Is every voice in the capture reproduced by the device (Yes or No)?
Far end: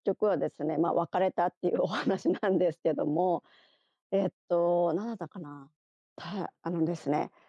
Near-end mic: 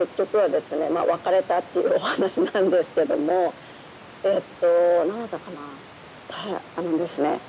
Yes